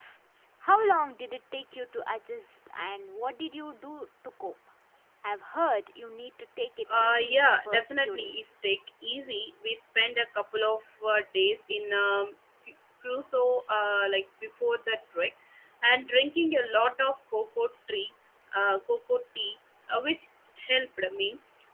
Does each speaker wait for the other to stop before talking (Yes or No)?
No